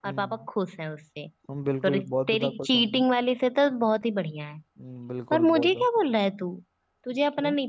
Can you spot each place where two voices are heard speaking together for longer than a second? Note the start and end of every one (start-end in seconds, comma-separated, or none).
1.8-3.0